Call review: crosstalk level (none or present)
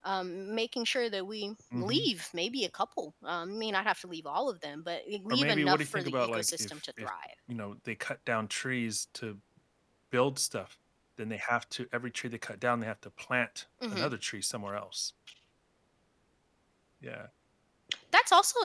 present